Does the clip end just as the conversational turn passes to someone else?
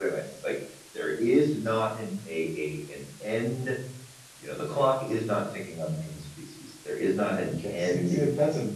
Yes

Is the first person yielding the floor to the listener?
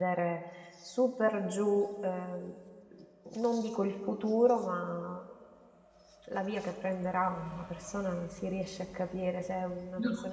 No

